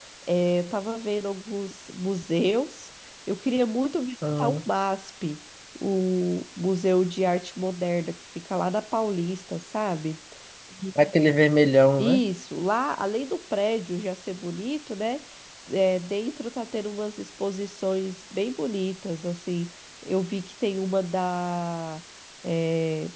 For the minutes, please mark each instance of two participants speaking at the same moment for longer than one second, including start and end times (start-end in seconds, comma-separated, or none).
none